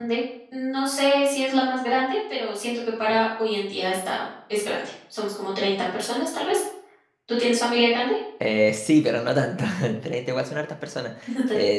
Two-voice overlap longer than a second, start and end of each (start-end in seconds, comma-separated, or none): none